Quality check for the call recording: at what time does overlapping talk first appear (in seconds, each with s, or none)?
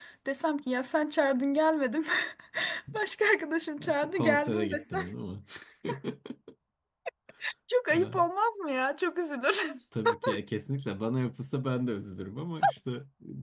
3.8 s